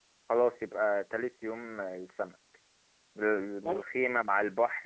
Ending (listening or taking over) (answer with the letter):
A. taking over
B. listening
B